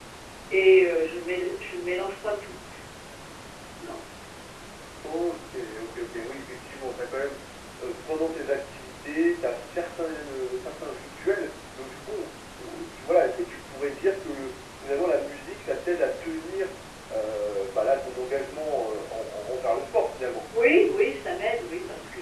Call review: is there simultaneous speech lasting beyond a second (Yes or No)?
No